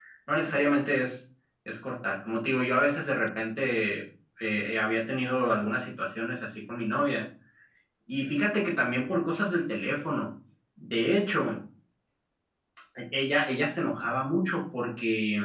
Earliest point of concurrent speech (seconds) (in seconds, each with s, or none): none